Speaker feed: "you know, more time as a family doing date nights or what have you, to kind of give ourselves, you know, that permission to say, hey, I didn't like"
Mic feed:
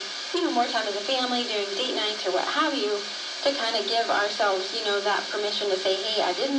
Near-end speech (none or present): none